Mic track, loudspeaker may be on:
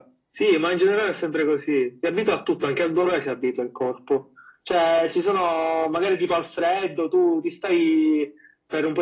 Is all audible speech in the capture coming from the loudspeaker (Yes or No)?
Yes